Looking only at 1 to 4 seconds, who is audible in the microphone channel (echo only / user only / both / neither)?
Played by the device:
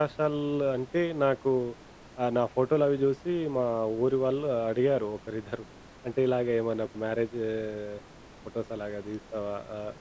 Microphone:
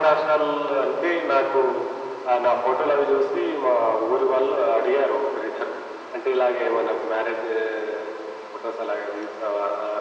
echo only